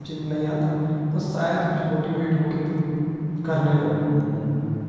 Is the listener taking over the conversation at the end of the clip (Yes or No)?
Yes